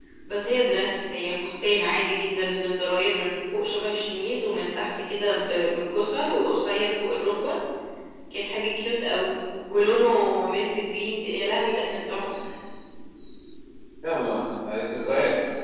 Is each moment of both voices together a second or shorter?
Yes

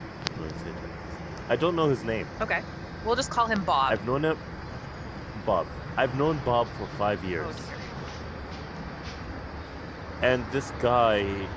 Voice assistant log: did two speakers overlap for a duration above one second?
No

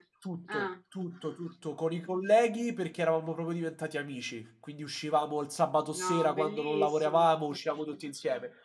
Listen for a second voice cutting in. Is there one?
Yes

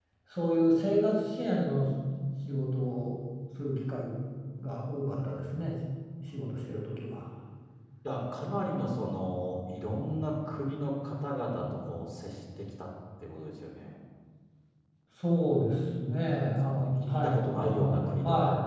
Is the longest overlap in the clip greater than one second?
Yes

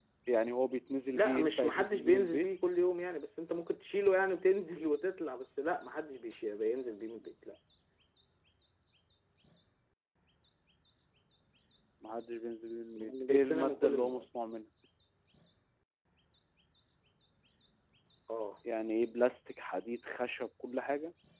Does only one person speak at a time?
No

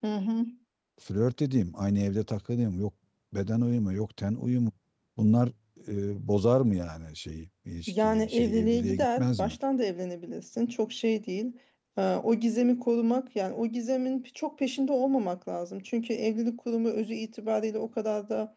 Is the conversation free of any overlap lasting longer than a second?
No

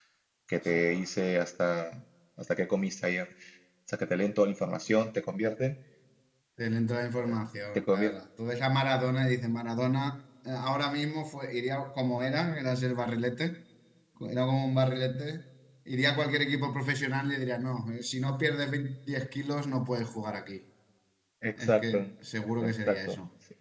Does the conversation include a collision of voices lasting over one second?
No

